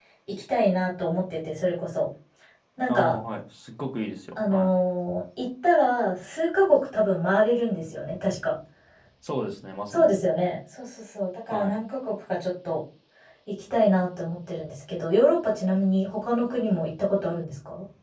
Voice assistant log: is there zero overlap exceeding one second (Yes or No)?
Yes